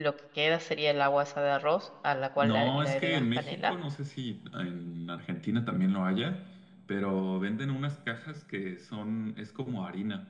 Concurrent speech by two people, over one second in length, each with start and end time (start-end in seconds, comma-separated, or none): 2.4-3.7